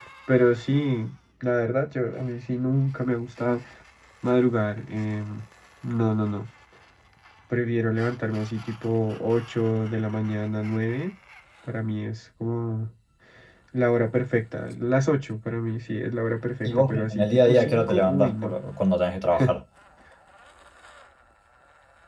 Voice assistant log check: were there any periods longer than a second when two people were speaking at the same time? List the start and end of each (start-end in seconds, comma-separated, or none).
16.6-18.6